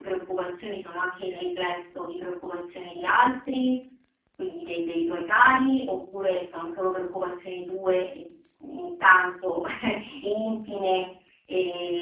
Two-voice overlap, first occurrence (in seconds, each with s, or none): none